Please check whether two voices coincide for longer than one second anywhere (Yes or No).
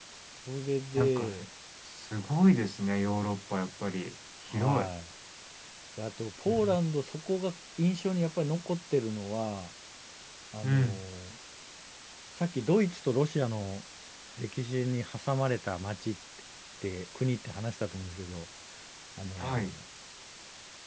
No